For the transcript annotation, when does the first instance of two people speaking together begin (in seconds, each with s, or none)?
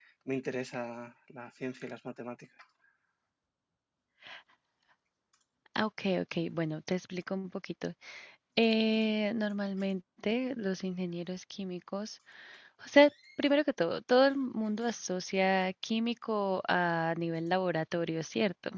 none